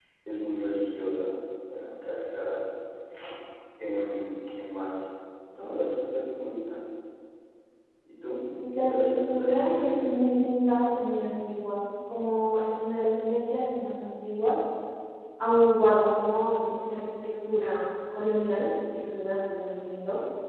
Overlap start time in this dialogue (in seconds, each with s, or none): 8.8 s